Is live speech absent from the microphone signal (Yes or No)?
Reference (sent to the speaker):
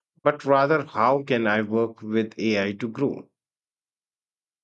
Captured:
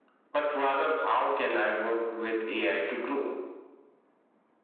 Yes